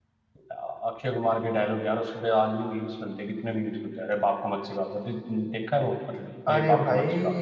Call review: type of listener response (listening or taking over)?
taking over